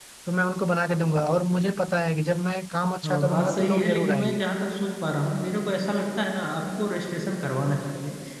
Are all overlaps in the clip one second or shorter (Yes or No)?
No